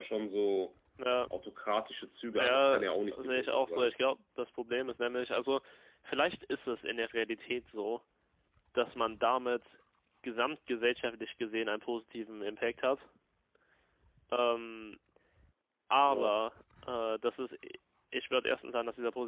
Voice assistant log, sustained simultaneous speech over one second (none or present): present